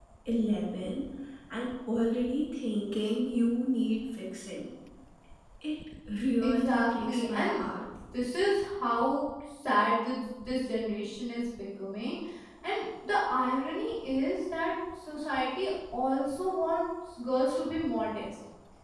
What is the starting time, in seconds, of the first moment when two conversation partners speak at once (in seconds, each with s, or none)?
6.4 s